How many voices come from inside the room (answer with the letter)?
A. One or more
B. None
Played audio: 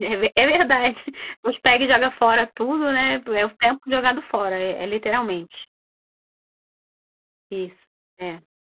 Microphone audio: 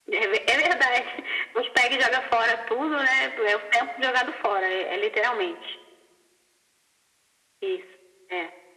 B